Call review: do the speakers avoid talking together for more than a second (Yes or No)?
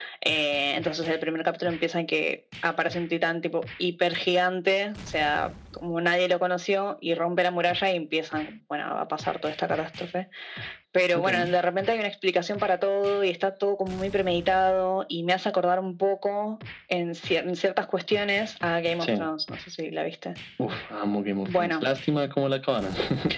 Yes